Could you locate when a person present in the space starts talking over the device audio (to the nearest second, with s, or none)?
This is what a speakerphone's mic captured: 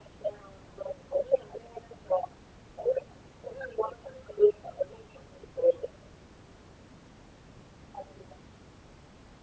none